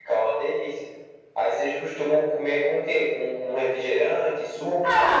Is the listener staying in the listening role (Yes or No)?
No